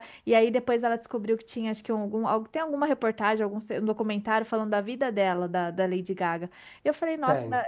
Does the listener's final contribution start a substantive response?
No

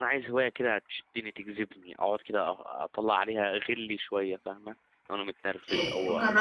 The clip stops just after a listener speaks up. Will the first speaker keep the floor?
No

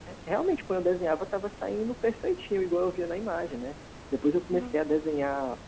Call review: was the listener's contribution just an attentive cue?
Yes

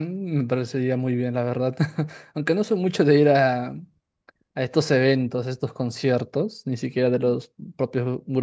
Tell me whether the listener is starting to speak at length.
No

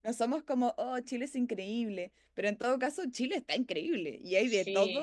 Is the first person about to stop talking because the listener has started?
No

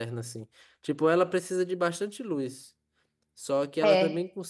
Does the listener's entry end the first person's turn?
No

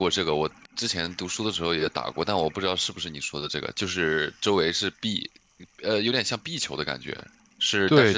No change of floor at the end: Yes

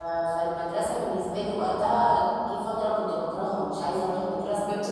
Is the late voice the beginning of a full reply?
Yes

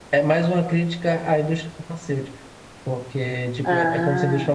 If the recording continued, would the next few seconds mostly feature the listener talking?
No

